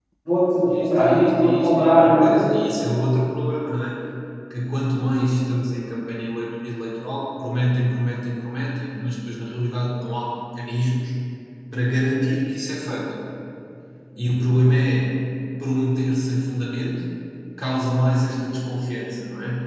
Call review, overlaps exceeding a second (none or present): present